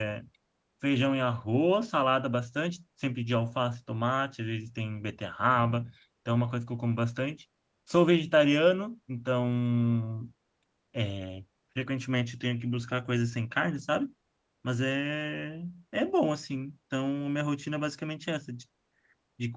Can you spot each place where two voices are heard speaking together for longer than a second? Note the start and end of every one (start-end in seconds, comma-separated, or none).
none